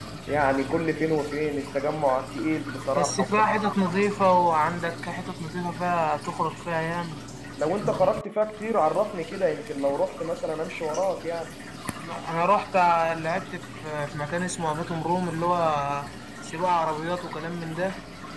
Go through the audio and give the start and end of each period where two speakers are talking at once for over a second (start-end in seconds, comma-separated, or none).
none